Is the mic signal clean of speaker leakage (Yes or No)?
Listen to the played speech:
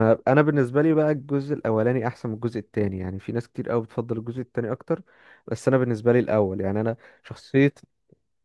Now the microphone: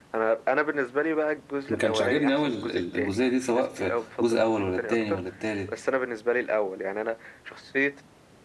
No